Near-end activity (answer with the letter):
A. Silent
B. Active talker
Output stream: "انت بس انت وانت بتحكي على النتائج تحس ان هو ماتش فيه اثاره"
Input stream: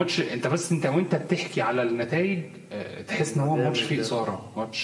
B